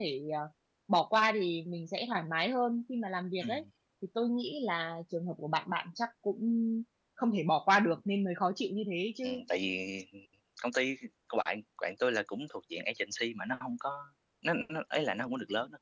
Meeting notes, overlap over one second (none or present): none